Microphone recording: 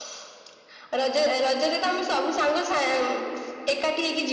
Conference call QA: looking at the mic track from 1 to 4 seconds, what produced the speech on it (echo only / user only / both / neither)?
echo only